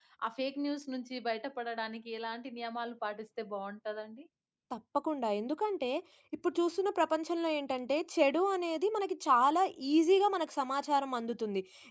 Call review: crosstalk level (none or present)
none